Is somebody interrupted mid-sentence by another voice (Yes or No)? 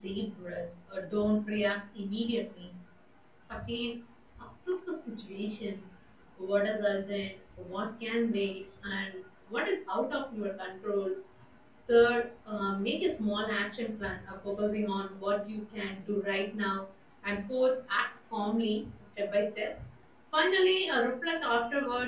No